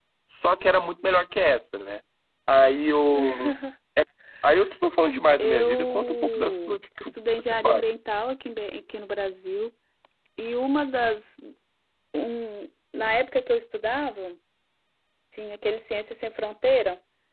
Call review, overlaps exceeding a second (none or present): present